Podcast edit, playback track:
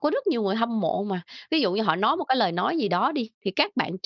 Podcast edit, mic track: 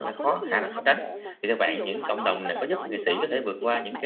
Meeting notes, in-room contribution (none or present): present